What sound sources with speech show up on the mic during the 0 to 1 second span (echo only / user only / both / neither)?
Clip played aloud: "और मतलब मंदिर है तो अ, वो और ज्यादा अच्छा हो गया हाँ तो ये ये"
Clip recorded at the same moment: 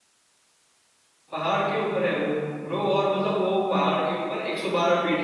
neither